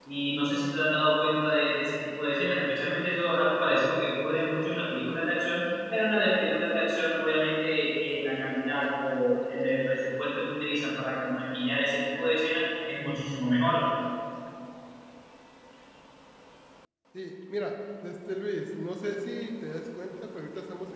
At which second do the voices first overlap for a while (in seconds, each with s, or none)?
none